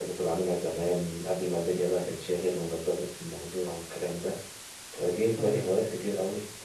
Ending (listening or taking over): listening